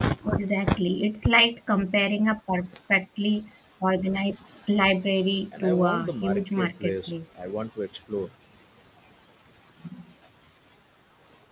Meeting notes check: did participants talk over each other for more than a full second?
Yes, from 5.5 s

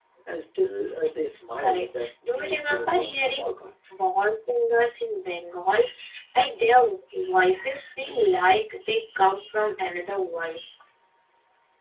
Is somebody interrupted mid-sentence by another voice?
Yes, from 1.6 s

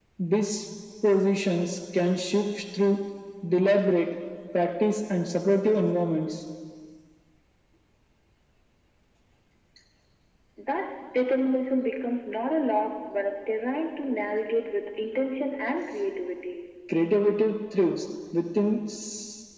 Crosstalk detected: No

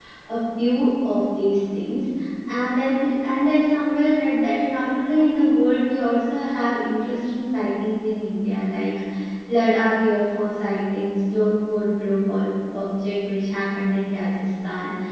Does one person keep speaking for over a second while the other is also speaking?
No

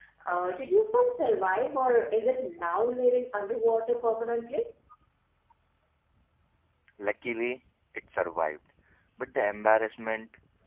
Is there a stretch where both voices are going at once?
No

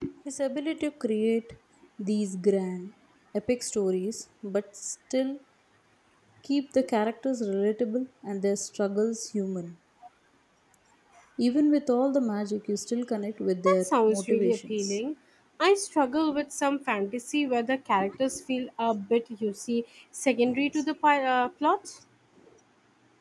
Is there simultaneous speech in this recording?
Yes, from 13.6 s

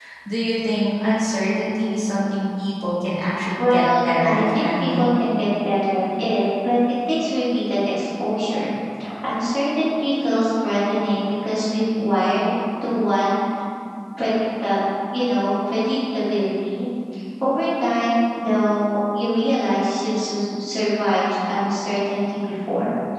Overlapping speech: Yes, from 3.6 s

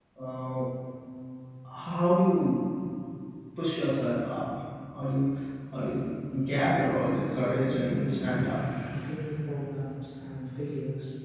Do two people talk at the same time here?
Yes, from 7.2 s

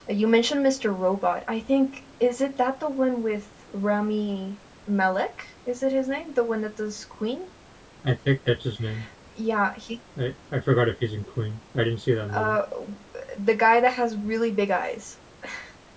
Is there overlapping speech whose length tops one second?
No

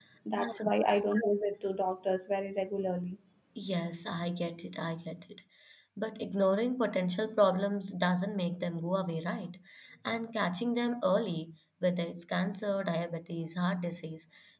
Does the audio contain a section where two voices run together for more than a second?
No

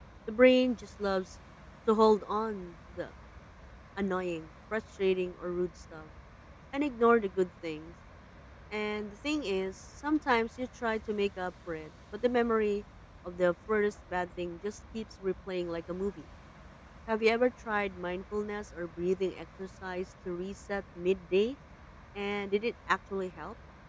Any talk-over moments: No

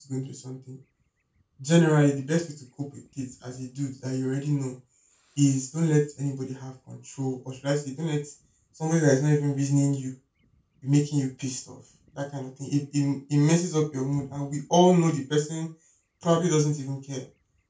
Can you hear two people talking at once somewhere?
No

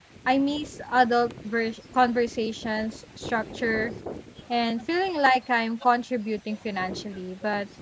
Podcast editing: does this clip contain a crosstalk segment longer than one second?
No

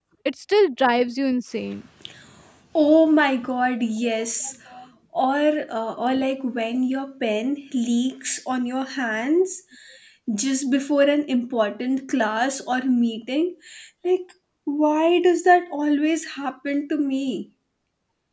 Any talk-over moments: No

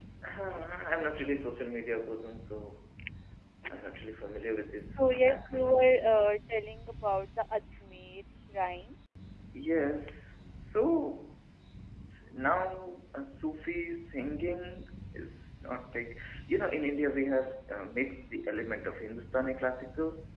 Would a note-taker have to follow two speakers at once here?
Yes, from 5.0 s

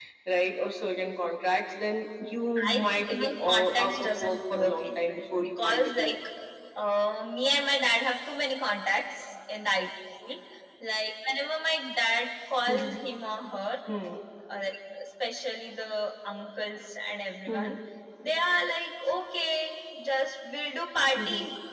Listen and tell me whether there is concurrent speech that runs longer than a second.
Yes, from 2.7 s

